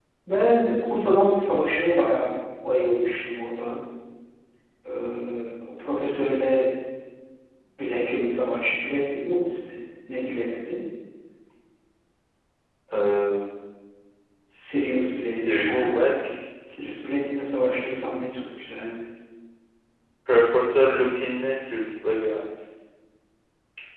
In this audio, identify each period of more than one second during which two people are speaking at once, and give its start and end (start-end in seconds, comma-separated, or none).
14.7-15.9